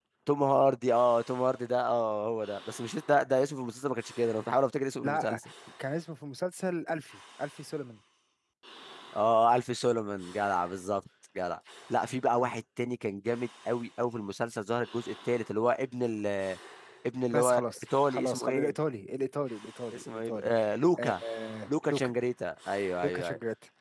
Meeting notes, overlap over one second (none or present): present